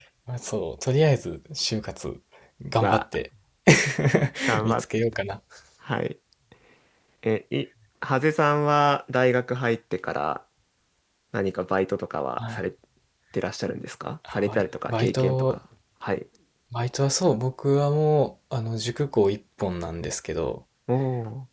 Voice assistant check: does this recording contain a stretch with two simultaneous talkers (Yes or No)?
Yes